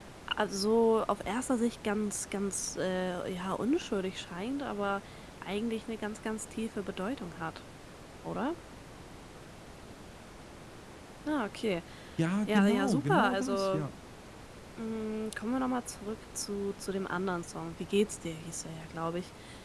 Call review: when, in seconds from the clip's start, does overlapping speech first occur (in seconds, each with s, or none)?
12.5 s